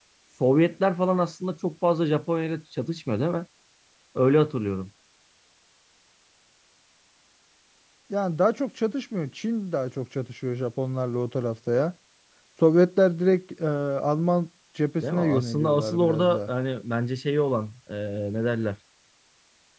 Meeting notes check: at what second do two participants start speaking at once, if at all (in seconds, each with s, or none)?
15.0 s